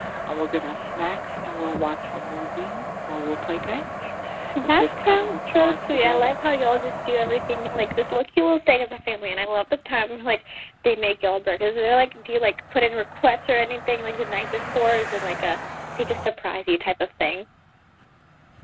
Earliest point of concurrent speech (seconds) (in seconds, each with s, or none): 4.6 s